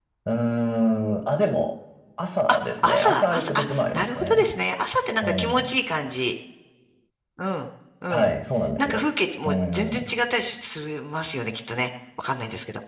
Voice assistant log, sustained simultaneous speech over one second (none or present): present